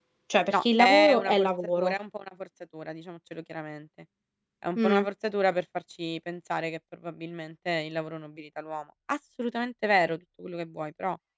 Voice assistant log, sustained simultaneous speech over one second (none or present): present